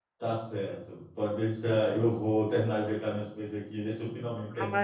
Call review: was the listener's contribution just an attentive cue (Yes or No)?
No